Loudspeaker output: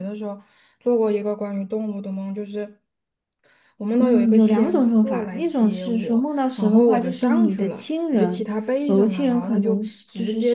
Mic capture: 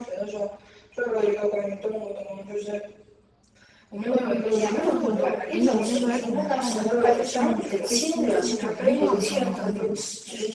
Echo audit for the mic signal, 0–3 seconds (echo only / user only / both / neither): echo only